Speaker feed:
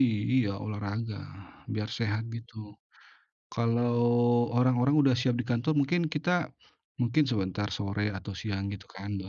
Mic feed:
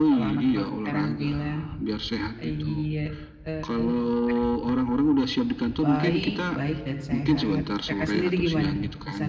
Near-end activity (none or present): present